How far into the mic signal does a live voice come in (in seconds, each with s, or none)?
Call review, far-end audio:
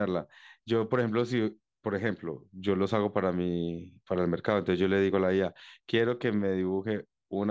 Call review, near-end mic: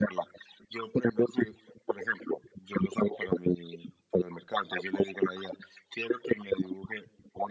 none